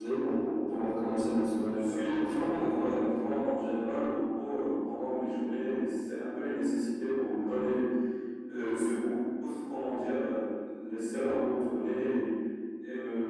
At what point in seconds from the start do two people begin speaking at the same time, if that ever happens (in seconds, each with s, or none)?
1.7 s